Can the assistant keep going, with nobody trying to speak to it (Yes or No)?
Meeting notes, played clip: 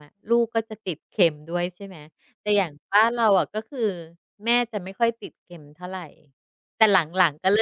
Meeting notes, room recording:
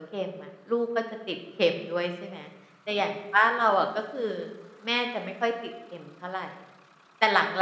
Yes